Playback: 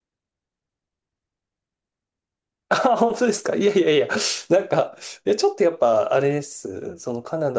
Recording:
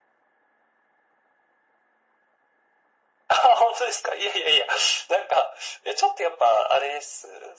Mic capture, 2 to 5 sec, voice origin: echo only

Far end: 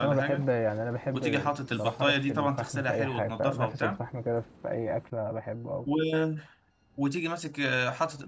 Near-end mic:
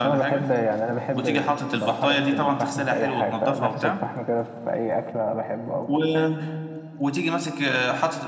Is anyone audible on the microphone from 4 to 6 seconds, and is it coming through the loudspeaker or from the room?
echo only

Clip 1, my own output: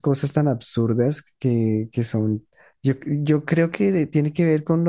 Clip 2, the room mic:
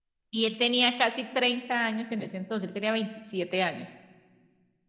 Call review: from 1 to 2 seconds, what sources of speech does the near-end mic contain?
user only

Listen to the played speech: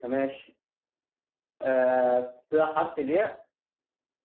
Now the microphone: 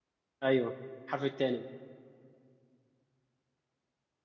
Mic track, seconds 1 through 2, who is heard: user only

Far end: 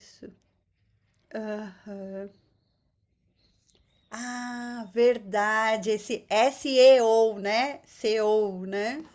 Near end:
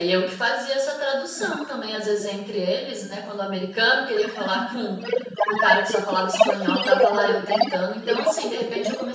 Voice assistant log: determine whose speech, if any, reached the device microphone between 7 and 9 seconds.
both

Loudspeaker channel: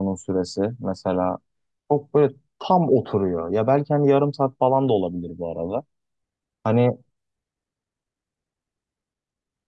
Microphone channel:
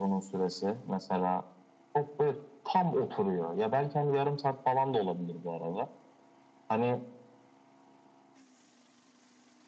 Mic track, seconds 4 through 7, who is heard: echo only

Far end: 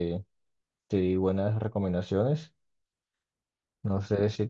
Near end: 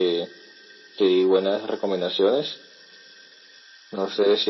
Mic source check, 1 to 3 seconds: echo only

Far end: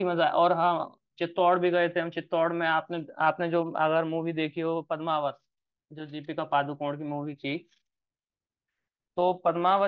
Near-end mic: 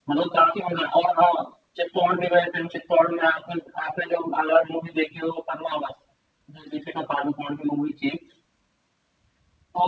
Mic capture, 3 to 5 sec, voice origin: echo only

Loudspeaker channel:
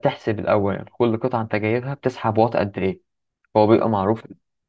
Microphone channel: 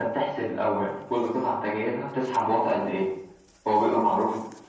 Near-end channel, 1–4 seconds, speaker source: echo only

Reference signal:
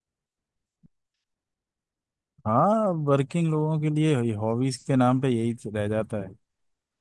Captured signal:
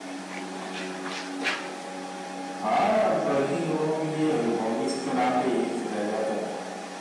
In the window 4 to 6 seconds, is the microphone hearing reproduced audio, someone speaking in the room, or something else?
echo only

